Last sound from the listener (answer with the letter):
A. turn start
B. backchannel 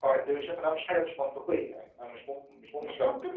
A